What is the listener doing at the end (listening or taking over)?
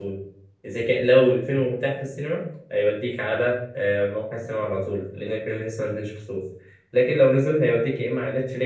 listening